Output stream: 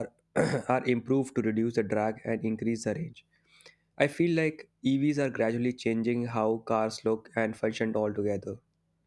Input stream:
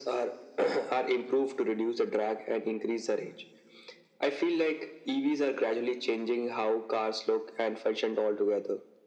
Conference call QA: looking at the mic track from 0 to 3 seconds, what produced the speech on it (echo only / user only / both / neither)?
echo only